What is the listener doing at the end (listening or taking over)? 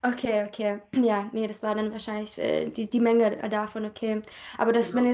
listening